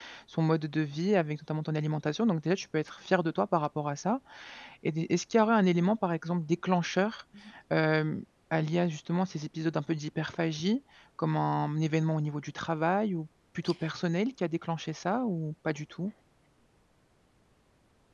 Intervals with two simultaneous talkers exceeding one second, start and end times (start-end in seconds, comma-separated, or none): none